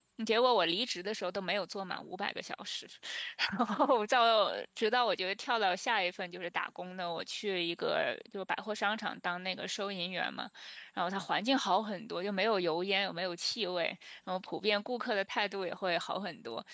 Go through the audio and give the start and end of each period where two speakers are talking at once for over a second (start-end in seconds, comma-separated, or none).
none